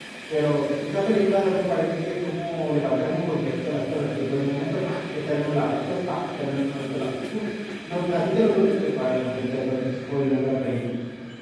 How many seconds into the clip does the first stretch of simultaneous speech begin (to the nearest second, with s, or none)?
none